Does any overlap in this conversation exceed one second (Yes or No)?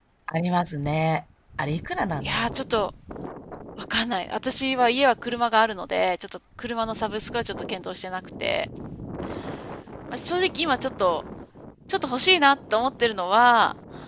No